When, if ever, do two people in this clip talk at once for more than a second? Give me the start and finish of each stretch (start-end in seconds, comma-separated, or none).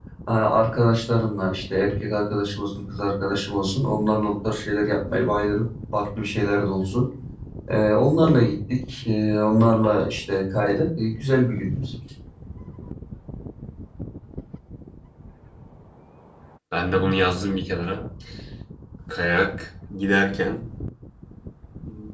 none